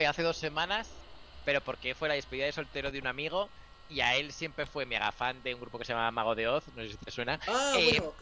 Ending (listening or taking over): taking over